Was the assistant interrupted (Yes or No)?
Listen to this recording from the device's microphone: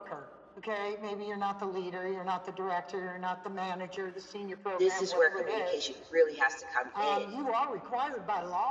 Yes